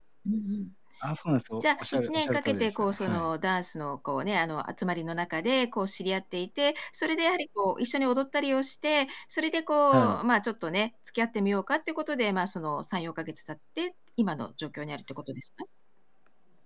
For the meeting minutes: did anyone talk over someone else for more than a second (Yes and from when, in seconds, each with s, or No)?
Yes, from 1.6 s